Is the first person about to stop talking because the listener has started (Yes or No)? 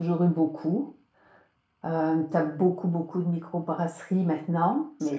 No